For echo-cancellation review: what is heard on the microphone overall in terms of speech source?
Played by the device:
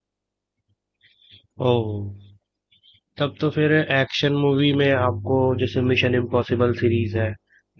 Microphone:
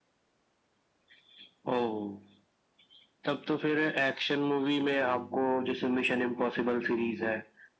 echo only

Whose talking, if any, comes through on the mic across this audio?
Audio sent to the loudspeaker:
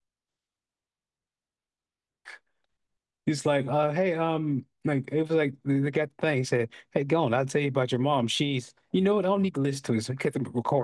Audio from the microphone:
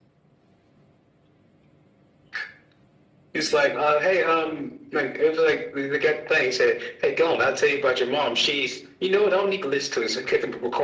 echo only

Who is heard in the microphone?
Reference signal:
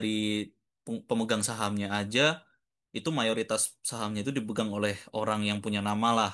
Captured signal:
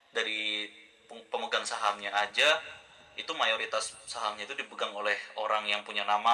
echo only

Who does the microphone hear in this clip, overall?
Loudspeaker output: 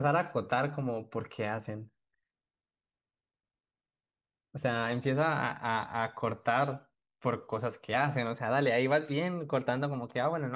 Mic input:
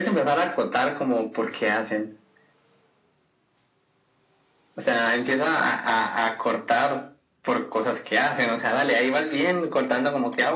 echo only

